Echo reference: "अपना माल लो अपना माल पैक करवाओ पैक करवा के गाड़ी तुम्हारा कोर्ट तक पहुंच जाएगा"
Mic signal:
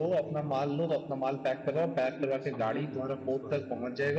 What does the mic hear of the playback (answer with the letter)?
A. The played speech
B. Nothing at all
A